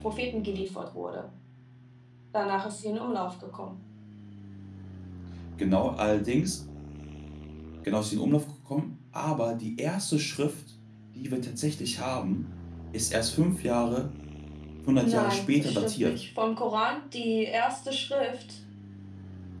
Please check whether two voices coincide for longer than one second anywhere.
Yes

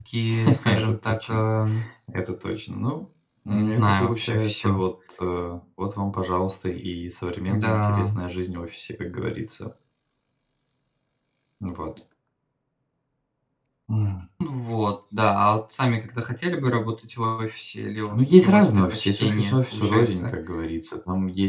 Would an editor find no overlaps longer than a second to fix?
No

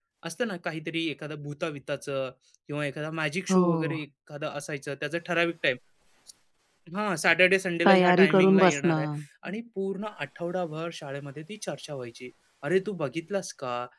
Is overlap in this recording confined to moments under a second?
No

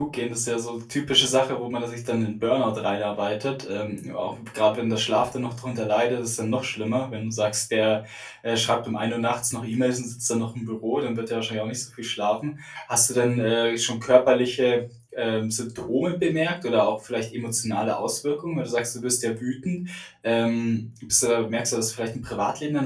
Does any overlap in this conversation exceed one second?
No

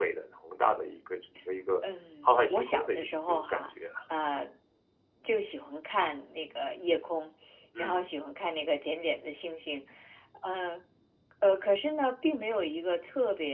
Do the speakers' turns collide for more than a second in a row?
Yes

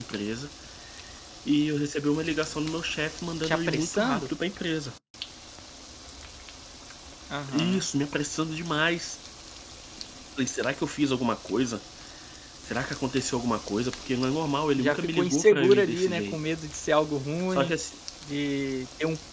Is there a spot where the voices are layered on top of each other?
Yes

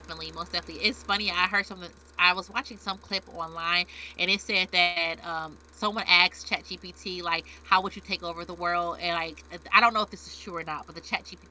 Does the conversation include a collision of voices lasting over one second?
No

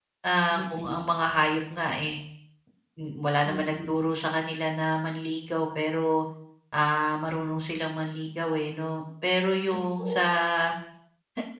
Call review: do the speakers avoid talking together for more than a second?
Yes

